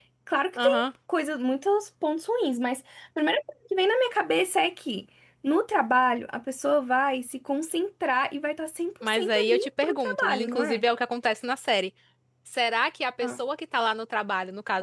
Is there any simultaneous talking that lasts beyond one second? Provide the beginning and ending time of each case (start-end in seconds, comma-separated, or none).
9.0-10.8